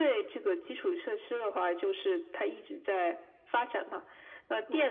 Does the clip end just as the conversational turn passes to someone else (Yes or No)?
No